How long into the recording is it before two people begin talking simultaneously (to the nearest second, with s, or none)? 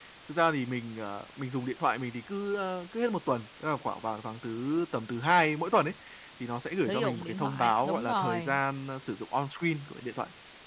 7 s